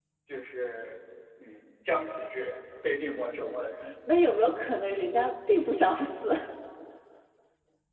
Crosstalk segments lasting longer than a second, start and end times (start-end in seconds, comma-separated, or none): none